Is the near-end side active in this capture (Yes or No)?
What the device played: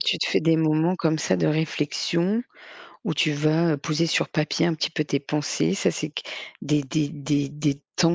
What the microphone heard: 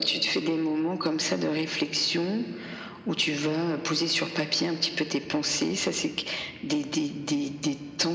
No